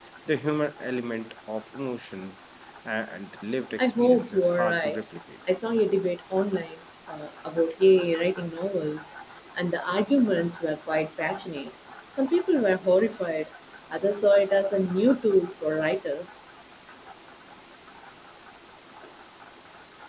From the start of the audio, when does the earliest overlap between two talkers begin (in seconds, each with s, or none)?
3.8 s